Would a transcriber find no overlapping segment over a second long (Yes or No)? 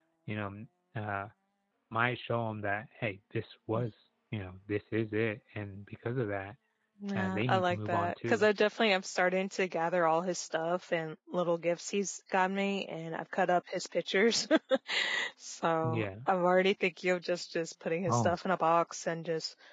No